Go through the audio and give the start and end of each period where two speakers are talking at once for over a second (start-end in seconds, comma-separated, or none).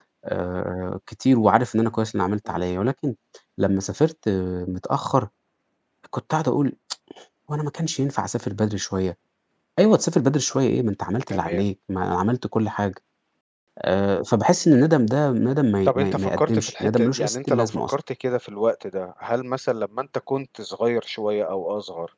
15.8-17.9